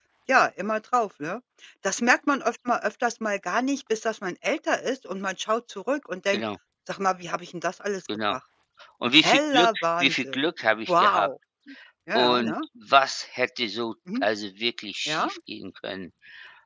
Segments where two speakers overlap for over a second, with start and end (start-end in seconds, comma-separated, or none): 9.2-10.5